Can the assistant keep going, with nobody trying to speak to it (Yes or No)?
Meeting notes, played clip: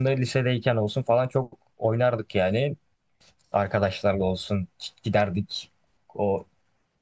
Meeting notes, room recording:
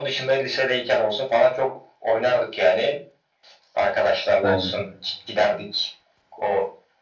No